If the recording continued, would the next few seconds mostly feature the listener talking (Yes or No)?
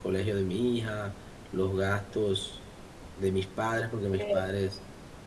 No